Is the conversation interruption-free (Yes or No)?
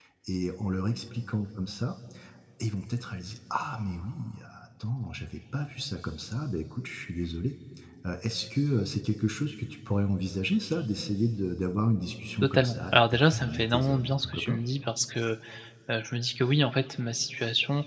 No